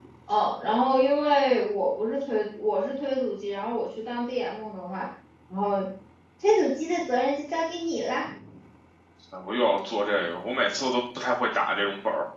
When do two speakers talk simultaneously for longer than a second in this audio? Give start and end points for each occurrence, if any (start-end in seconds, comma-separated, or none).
none